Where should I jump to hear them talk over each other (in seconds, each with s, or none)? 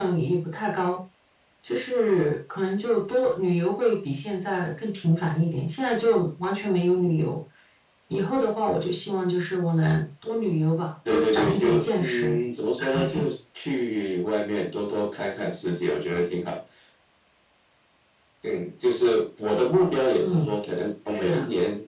11.1 s